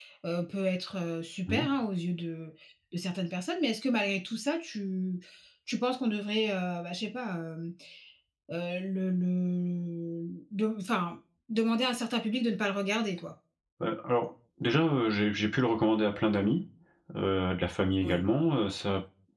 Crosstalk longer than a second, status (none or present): none